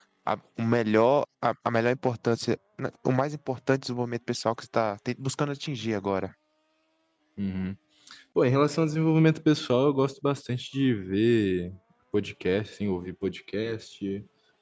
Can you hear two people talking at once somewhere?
No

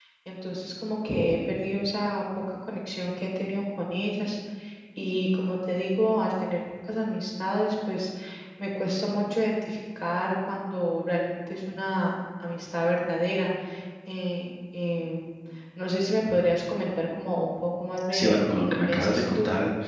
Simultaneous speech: Yes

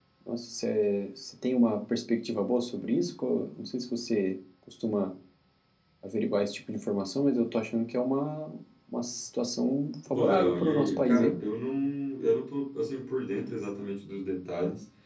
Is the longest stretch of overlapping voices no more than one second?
No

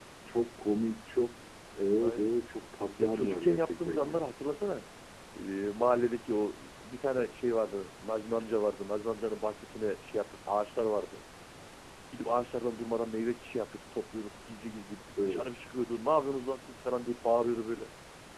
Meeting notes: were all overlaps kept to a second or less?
No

